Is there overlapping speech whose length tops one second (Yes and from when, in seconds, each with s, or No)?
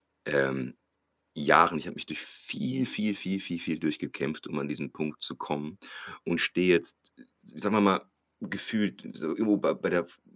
No